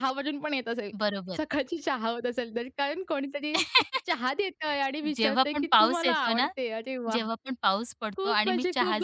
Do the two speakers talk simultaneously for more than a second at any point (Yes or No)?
Yes